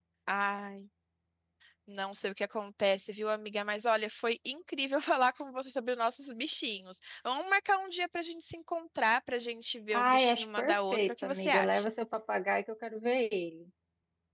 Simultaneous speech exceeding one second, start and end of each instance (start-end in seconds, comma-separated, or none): 9.9-11.9